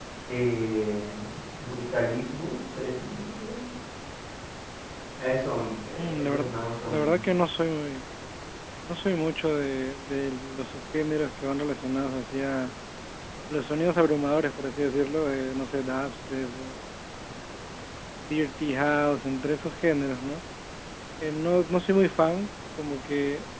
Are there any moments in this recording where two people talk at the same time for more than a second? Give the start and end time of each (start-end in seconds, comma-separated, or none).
5.8-7.2